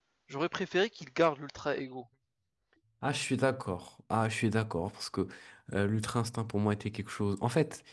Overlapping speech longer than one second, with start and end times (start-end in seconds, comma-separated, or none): none